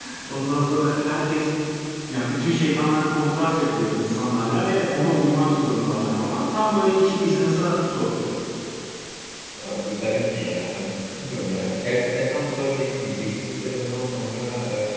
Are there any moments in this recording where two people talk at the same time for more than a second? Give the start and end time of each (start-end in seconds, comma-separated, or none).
none